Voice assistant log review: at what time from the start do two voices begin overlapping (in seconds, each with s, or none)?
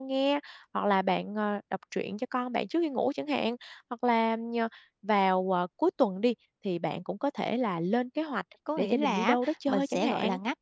8.7 s